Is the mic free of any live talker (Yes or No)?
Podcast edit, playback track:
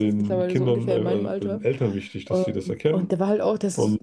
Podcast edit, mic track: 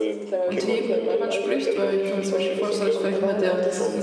No